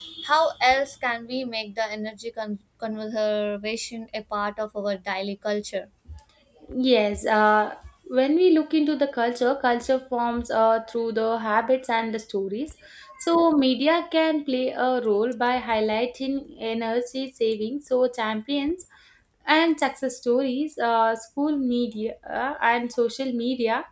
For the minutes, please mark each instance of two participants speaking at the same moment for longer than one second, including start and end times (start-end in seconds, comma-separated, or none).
none